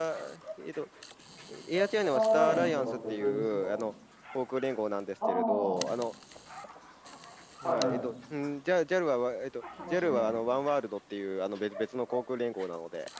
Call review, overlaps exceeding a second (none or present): present